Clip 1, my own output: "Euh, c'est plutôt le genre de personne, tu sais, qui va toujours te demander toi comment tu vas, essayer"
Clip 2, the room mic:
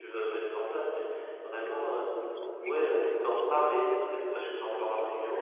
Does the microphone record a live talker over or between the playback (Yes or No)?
Yes